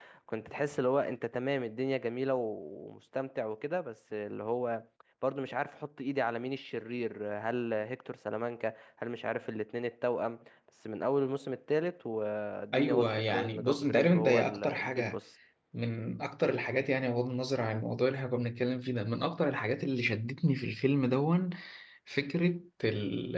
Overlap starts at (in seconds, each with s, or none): 12.7 s